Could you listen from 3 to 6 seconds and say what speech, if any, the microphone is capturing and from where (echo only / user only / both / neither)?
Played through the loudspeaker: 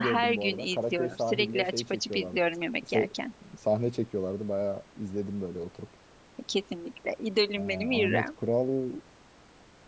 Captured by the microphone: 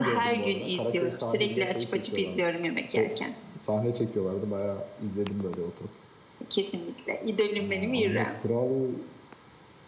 echo only